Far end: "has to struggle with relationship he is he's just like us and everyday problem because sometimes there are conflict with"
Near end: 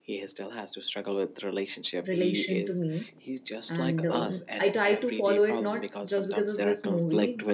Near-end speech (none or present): present